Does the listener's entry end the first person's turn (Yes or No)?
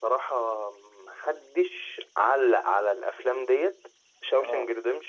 No